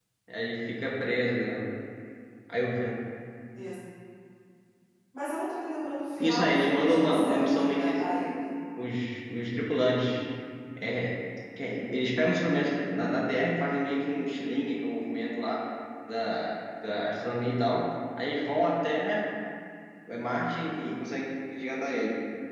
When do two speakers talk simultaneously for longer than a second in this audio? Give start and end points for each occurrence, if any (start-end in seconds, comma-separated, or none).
6.2-7.9